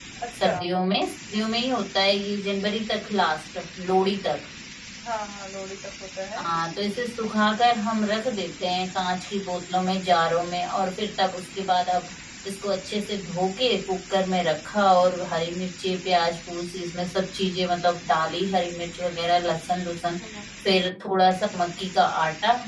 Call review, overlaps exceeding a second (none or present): none